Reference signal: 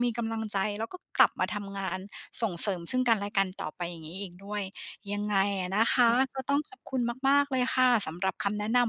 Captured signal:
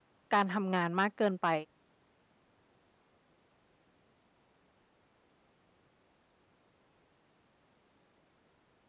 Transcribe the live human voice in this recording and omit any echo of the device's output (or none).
การทำงานมากเกินไป